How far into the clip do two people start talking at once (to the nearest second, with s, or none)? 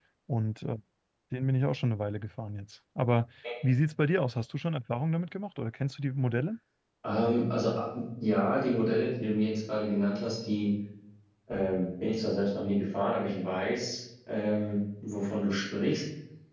none